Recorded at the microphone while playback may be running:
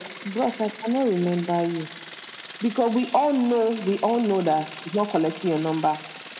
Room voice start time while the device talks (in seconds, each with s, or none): none